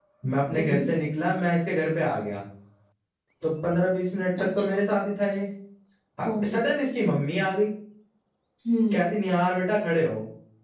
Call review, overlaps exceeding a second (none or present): none